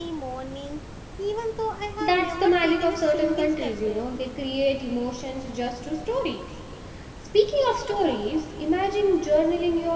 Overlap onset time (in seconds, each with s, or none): 2.0 s